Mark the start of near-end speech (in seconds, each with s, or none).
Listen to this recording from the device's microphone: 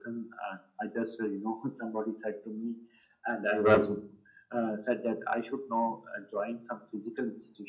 none